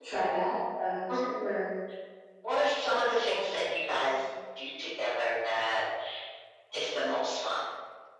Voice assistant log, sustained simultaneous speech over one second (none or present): none